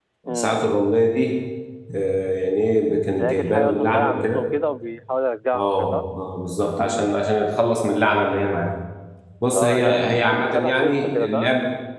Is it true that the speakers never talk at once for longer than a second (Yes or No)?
No